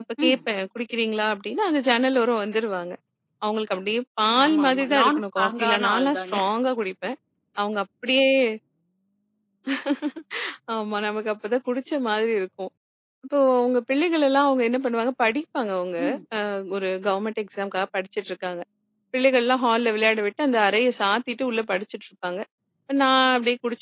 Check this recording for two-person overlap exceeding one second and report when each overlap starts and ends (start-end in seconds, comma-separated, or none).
4.5-6.3